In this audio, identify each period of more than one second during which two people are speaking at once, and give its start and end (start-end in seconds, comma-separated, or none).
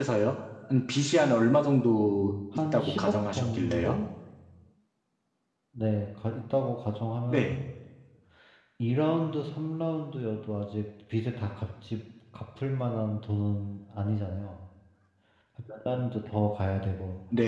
2.7-4.0